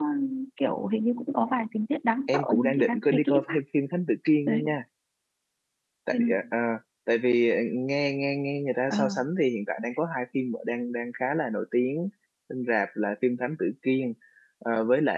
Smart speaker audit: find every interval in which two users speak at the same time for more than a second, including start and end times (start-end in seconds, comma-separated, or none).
2.3-3.5